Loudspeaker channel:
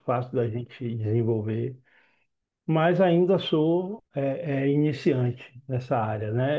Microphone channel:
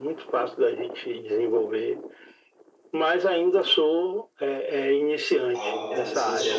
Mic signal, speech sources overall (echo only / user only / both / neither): both